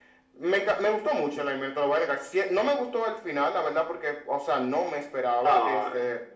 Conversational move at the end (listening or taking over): listening